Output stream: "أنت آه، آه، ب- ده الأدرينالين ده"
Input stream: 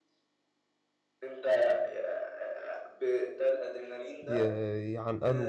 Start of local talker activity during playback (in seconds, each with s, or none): 4.2 s